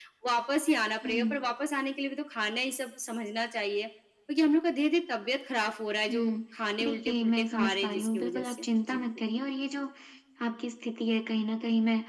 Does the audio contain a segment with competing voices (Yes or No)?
Yes